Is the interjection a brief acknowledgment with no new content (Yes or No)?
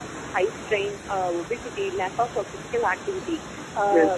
Yes